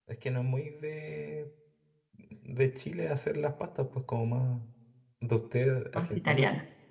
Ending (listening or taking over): listening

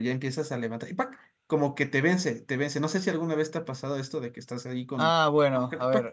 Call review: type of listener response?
taking over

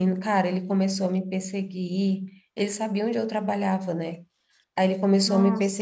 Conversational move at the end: listening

